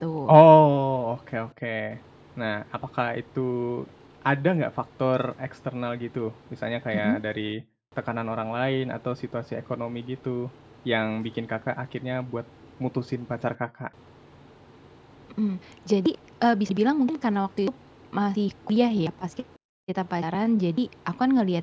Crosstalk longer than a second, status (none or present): none